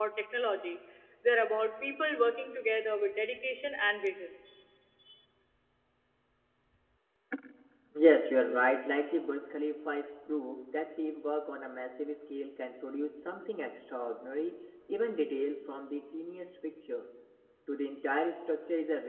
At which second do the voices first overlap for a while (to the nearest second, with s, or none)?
none